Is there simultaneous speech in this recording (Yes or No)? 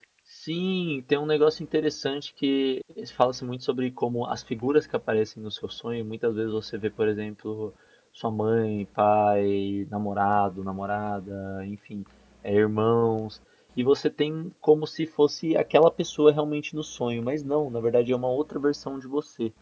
No